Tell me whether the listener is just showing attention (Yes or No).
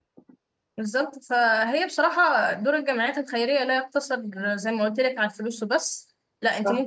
Yes